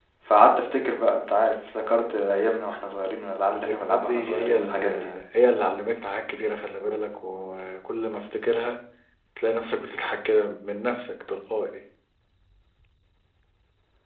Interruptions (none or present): present